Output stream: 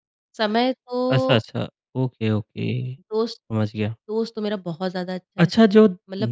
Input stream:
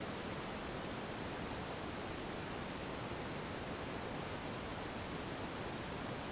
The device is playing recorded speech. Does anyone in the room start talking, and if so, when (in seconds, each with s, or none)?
none